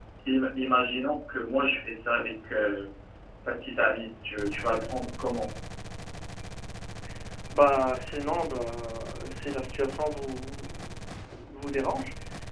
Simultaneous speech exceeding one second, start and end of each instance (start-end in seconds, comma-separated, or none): none